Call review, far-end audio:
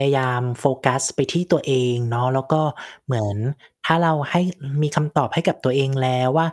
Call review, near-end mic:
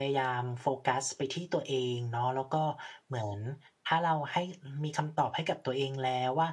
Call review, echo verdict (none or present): present